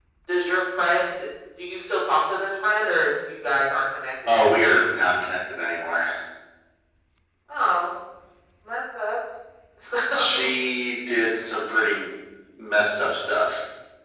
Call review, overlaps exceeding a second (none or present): none